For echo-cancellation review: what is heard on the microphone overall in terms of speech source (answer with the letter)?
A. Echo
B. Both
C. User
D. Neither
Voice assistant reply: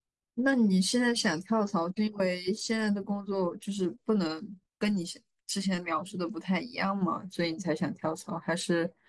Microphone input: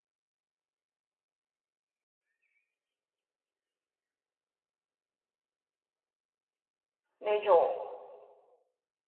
C